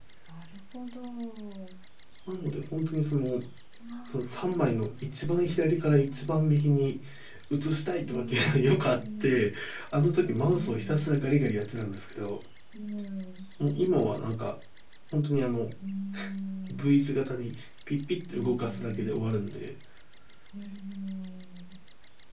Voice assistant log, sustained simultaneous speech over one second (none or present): present